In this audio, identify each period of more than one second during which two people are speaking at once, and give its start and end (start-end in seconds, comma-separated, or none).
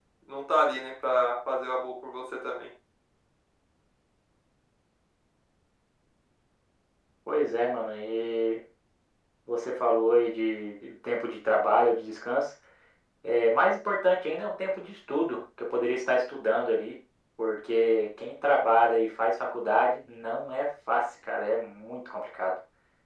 none